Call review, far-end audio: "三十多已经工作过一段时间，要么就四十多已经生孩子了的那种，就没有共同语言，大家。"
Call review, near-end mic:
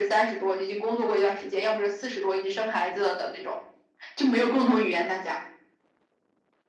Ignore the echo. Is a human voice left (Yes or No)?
No